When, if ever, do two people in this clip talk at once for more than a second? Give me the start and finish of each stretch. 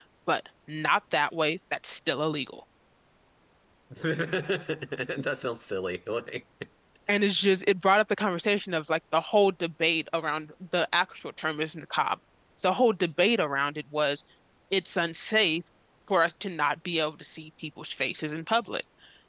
none

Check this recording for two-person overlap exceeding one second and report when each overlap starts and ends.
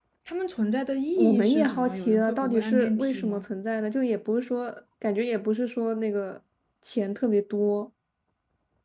1.2-3.4

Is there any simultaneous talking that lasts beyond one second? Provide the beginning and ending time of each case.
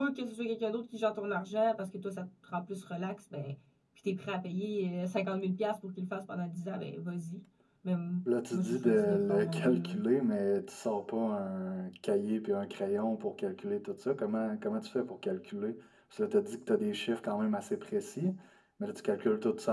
8.5-9.9

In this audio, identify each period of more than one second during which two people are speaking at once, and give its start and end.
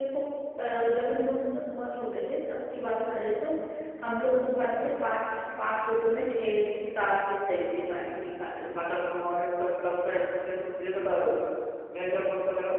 none

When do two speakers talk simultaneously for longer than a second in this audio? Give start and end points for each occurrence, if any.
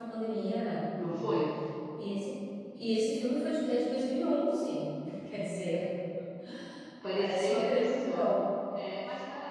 7.2-8.4

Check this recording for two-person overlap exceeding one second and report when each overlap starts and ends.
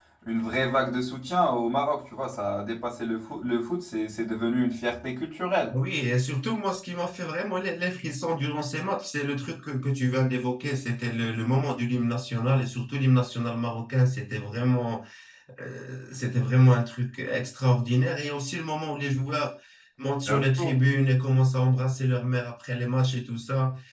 none

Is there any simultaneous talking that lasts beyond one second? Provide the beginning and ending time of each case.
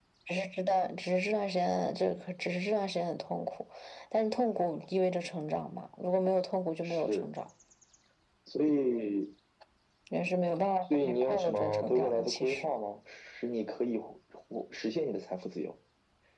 10.9-12.7

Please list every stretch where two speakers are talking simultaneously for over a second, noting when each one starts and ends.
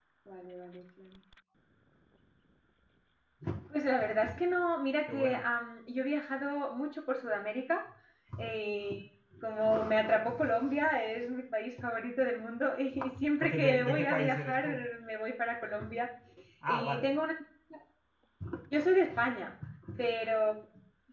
13.4-14.7

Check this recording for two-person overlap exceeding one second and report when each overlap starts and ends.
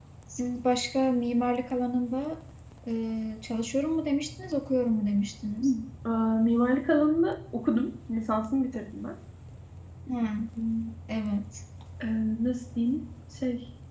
none

